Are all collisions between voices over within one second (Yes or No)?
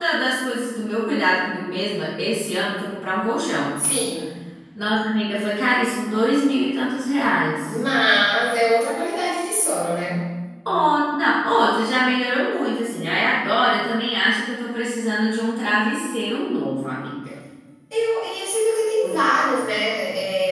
Yes